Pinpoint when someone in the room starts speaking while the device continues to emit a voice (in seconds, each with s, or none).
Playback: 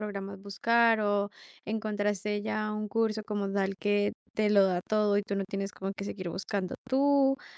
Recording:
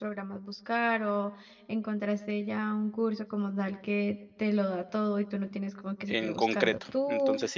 6.0 s